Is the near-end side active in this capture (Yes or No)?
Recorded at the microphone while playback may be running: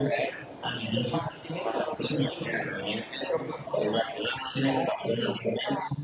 No